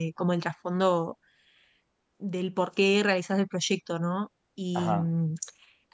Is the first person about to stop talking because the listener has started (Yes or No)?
No